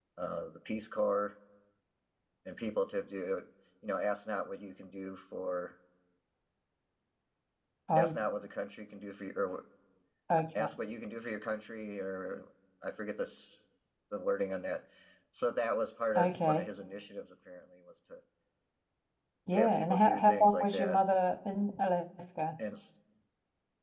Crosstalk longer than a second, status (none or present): present